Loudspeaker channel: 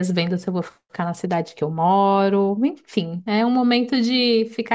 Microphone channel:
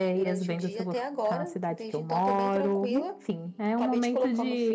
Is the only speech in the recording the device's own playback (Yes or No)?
No